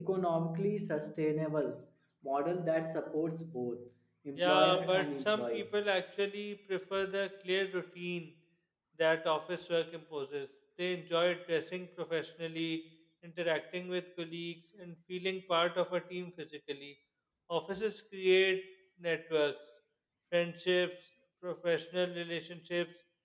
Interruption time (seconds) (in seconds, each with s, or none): 4.4 s